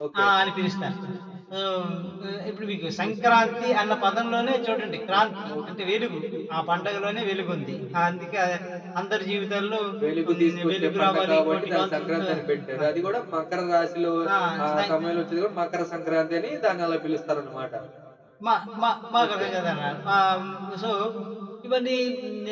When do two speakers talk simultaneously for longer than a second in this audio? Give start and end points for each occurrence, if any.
10.3-12.3

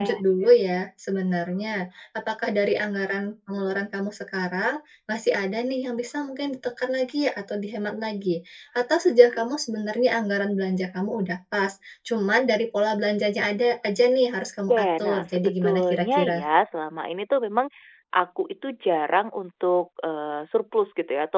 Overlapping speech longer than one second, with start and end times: 14.7-16.4

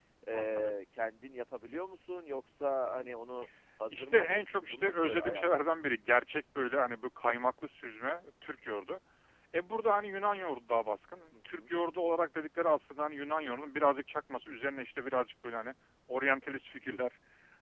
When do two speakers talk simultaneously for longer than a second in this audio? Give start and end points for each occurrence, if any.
3.9-5.6

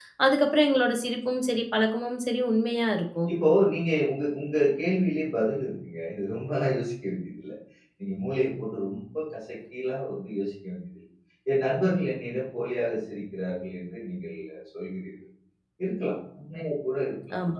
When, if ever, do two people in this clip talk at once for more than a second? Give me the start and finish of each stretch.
none

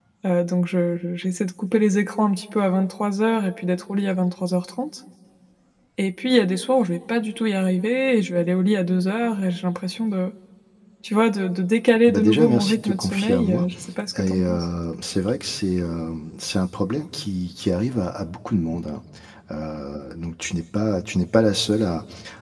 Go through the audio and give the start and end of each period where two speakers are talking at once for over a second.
12.1-13.7

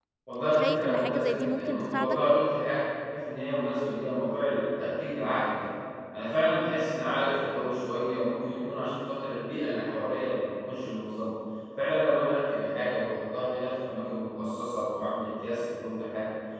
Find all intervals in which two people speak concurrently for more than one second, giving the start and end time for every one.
0.5-2.2

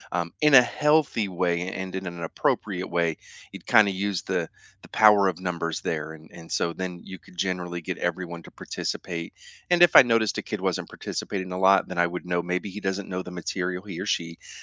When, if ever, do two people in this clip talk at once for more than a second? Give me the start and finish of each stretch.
none

